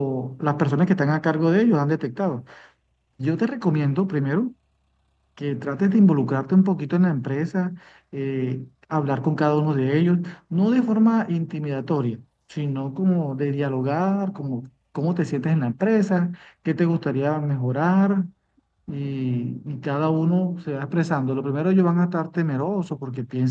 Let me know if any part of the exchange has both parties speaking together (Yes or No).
No